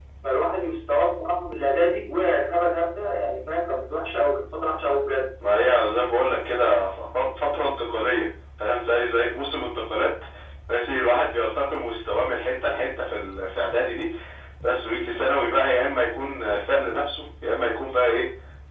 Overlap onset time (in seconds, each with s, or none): none